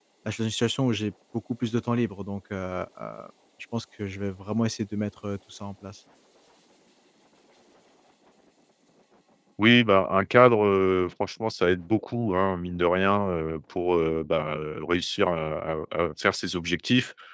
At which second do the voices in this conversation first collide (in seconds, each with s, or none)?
none